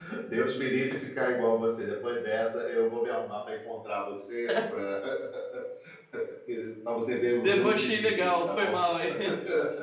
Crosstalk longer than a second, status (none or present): present